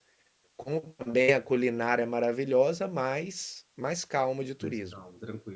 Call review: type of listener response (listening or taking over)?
taking over